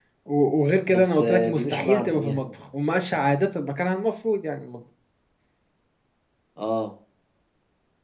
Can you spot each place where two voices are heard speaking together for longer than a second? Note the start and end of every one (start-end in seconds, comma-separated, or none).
0.9-2.5